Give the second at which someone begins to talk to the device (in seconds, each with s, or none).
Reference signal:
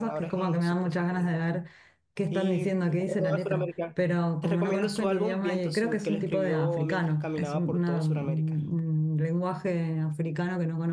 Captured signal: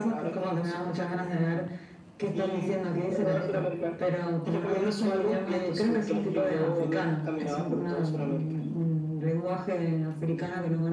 none